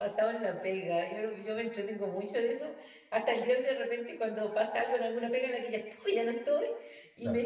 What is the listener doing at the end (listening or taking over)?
listening